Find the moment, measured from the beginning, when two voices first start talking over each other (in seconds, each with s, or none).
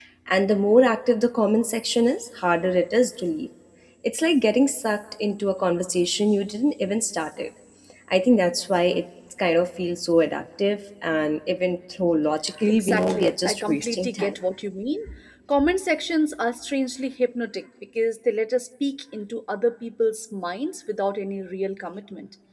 12.7 s